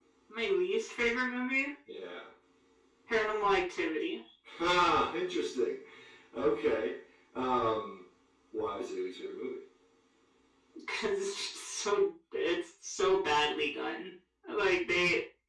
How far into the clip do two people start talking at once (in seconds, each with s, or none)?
none